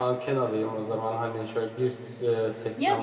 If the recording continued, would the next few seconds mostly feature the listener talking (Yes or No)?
Yes